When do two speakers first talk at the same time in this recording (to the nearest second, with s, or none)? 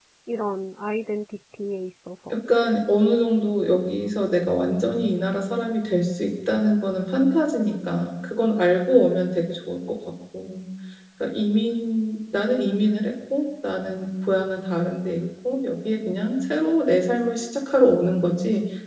none